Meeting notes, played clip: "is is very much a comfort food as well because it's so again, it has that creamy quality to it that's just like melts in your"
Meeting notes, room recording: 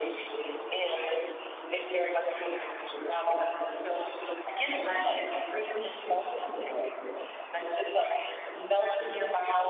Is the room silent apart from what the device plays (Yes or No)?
Yes